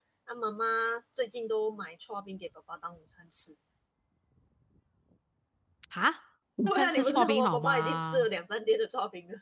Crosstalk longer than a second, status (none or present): present